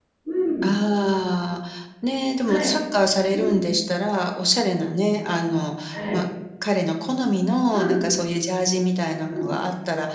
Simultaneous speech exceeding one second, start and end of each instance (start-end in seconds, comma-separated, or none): none